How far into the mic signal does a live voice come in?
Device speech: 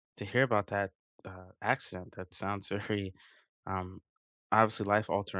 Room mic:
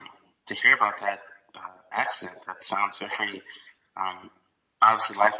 none

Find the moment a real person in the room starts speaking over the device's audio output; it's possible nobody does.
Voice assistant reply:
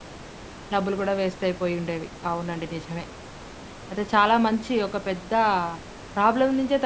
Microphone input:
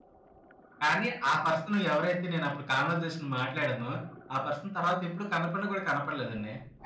0.8 s

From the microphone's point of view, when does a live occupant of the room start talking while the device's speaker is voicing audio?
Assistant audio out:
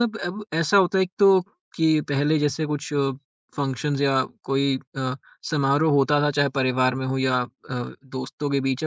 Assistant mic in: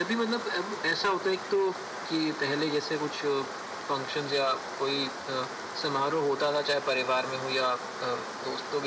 none

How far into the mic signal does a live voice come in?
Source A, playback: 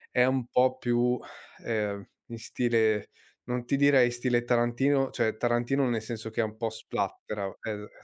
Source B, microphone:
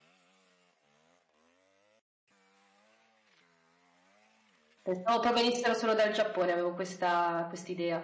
4.8 s

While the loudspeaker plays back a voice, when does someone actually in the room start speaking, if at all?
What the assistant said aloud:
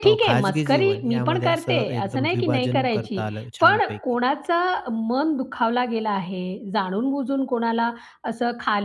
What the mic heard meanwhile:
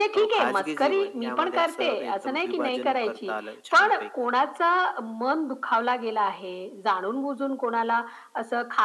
none

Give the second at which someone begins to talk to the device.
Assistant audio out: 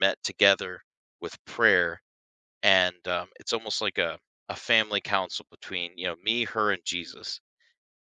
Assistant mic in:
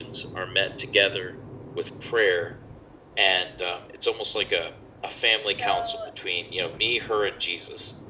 5.4 s

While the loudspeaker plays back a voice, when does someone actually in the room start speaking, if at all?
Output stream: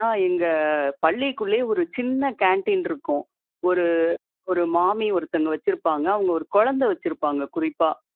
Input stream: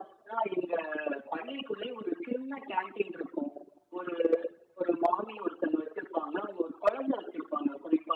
none

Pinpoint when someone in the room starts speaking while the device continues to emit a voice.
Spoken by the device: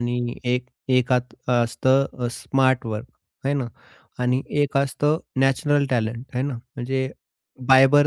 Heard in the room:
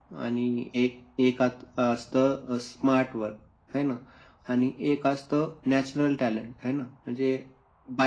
none

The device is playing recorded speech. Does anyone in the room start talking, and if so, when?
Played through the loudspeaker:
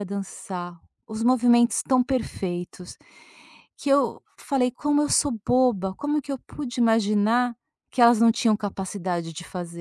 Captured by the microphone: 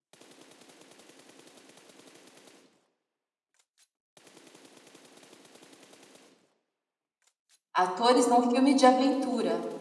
7.7 s

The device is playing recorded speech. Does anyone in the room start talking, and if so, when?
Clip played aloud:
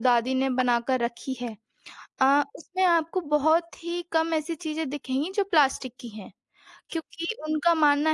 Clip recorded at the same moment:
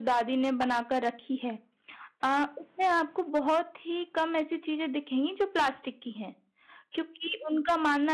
none

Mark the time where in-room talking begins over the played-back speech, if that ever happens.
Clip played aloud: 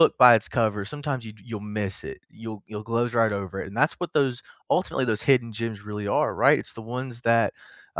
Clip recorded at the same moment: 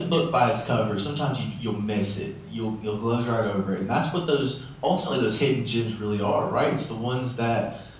none

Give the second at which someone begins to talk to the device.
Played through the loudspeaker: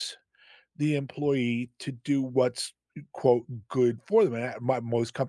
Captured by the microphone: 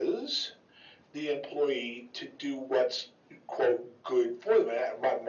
none

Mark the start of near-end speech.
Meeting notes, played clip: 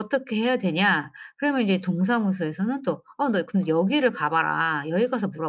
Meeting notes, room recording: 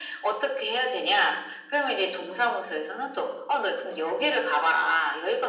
none

